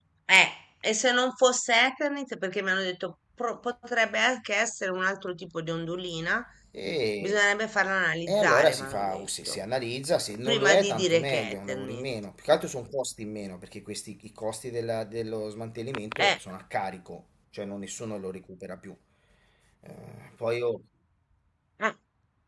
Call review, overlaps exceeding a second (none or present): present